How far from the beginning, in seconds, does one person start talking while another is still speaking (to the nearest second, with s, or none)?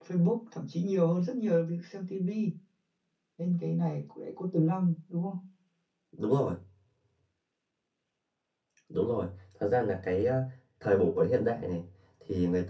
none